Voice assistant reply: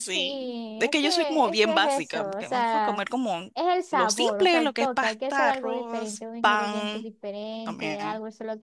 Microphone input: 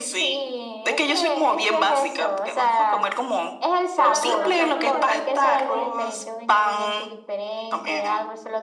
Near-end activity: present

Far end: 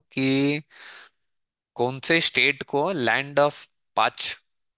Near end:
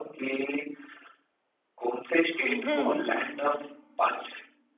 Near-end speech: present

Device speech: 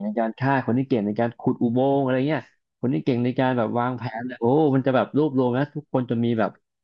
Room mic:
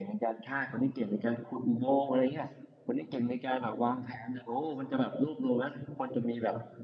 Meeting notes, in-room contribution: none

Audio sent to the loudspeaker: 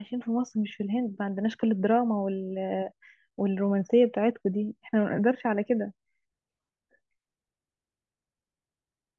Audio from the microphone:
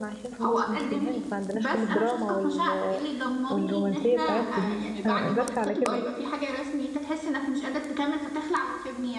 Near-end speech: present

